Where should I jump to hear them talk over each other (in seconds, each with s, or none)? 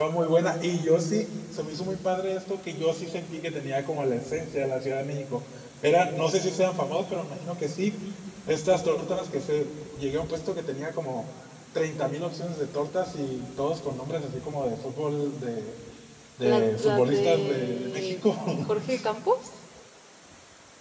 16.4 s